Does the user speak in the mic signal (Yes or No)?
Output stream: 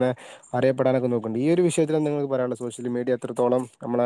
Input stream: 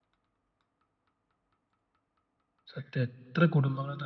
Yes